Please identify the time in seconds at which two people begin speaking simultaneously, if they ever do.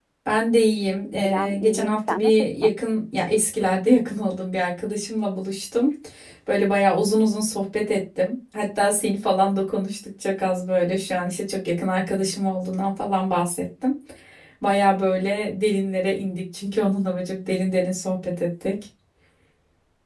1.1 s

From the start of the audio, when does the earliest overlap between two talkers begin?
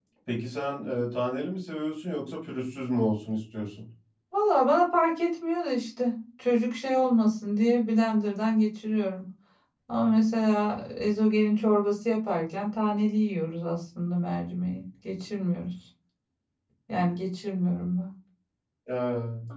none

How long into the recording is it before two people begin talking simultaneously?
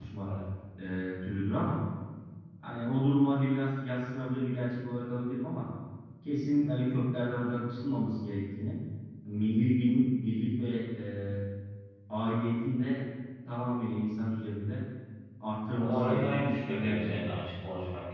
15.8 s

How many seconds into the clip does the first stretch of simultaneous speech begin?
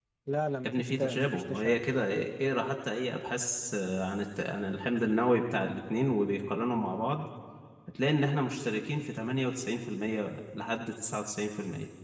0.7 s

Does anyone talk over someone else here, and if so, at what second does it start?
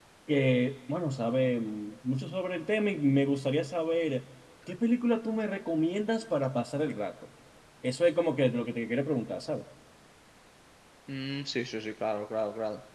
none

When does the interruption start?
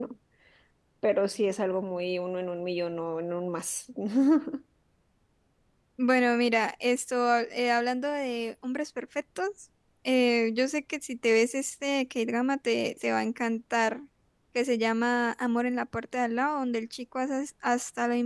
none

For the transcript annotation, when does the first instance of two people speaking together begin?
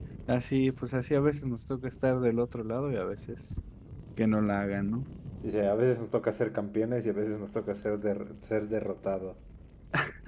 none

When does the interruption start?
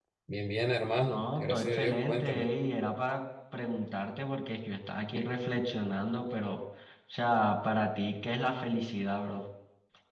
1.1 s

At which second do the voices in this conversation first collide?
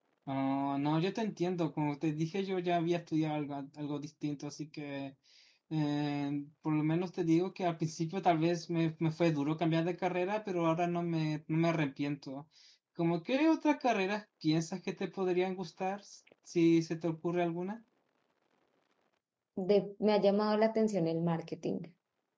none

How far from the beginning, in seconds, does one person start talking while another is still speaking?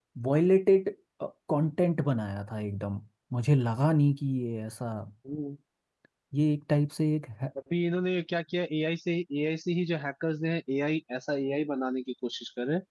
none

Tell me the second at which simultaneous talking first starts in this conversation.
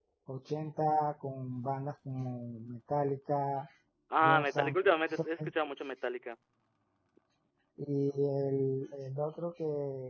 4.2 s

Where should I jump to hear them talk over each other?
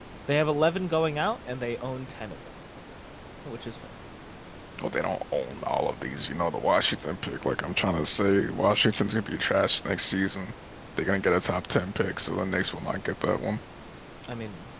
none

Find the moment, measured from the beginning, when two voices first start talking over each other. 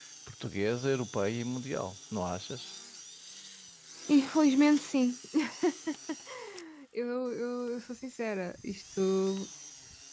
none

